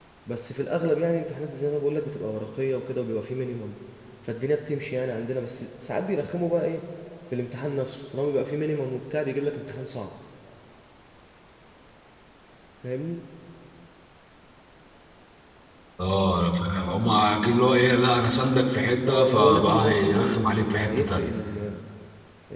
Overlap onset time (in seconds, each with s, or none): 19.0 s